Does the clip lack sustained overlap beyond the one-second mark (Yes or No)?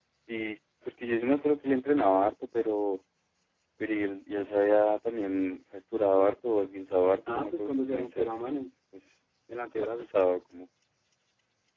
No